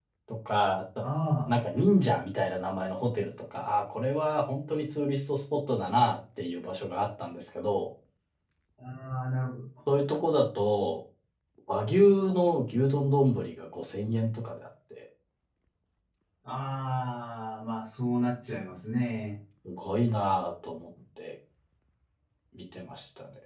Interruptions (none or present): none